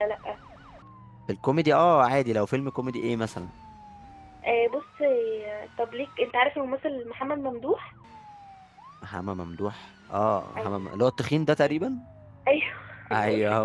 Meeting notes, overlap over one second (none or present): none